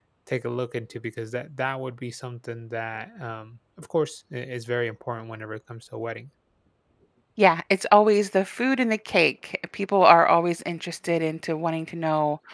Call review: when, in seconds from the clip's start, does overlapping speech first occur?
none

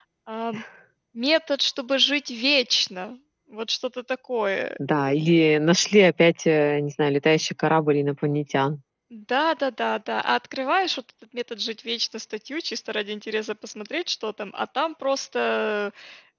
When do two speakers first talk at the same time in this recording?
none

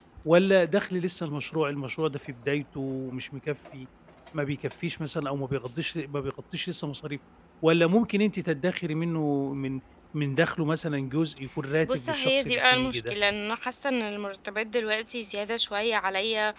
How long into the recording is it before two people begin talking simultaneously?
11.8 s

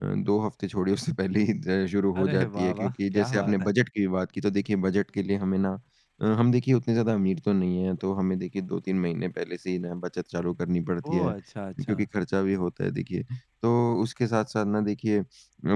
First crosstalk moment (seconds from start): 2.2 s

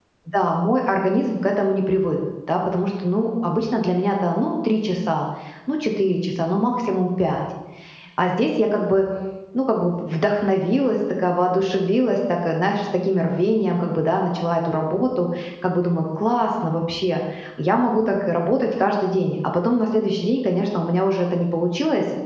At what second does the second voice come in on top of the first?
none

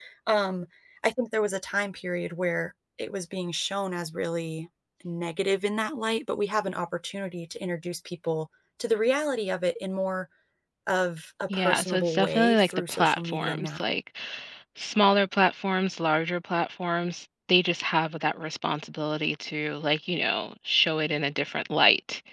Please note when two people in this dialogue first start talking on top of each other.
11.5 s

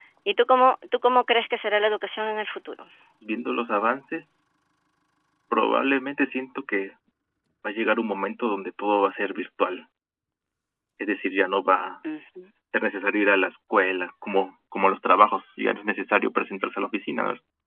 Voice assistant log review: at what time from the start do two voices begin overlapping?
none

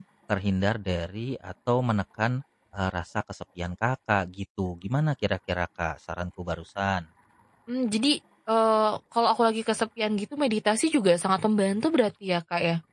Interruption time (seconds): none

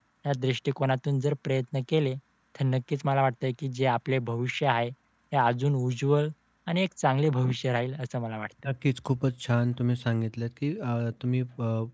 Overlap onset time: none

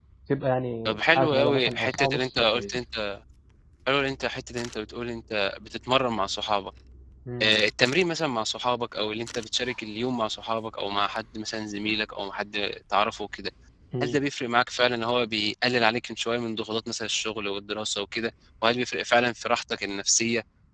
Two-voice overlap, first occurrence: 0.9 s

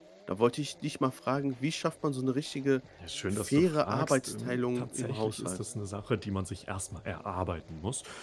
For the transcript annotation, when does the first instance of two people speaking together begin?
3.3 s

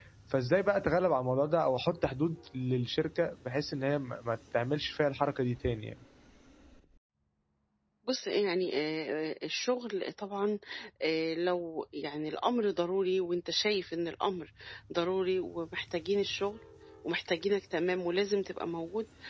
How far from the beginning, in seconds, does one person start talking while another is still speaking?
none

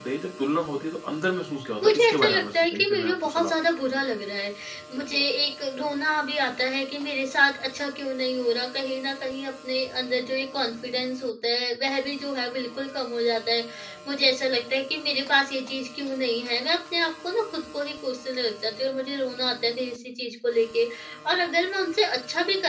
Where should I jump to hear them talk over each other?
1.8 s

